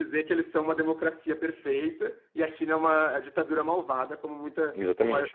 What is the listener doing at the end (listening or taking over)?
listening